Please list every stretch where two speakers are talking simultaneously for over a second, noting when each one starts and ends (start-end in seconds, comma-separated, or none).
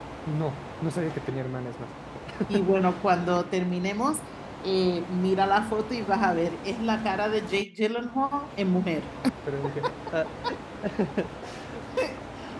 none